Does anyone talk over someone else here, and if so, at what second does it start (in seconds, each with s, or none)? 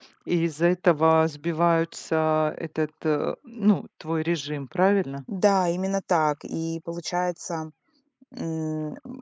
none